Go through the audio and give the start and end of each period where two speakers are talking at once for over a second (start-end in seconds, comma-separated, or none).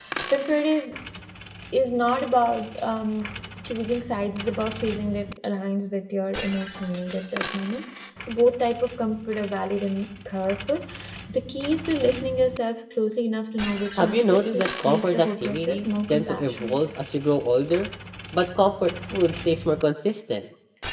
14.0-16.8